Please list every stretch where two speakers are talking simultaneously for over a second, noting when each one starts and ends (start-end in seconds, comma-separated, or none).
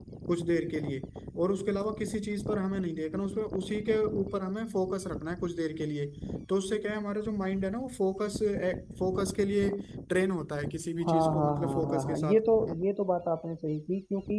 11.1-12.4